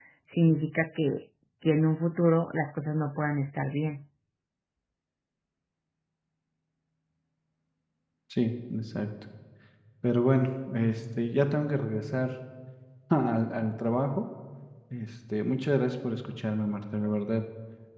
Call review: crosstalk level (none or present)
none